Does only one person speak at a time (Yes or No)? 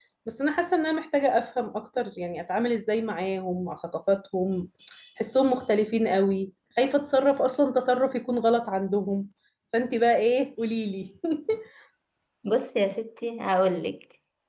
Yes